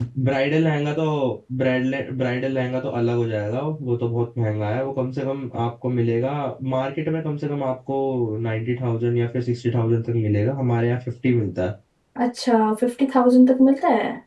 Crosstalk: none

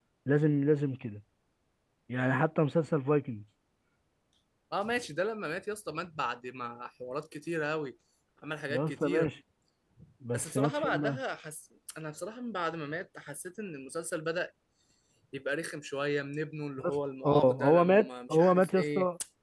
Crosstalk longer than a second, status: present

